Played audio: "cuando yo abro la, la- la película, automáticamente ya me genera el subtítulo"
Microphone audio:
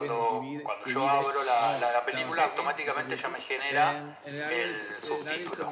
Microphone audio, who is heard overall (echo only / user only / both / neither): both